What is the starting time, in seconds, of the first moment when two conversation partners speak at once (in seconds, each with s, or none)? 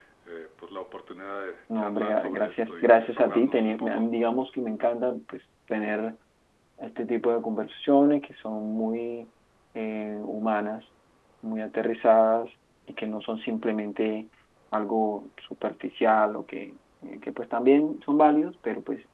1.7 s